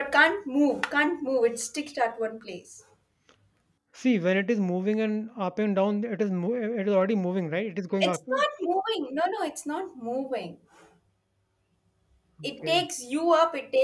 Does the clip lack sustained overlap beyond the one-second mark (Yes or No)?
Yes